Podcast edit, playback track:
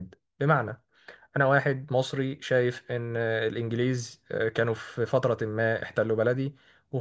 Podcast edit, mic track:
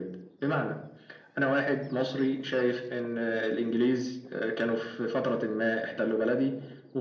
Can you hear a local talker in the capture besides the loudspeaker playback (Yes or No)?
No